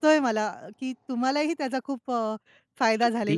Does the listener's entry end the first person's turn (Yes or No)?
Yes